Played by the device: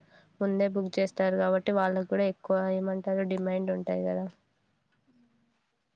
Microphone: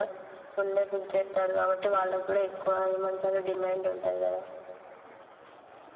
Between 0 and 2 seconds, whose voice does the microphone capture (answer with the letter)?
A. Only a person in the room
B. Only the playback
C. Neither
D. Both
B